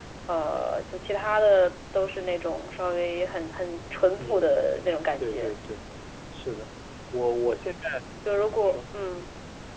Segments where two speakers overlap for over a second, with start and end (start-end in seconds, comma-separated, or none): none